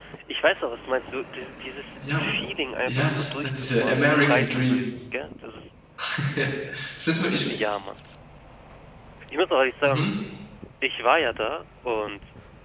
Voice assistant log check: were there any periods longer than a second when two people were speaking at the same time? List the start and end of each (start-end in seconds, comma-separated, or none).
2.9-4.8